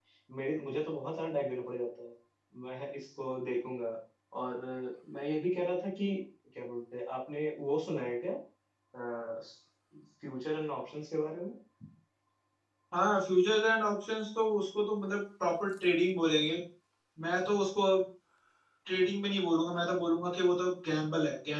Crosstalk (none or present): none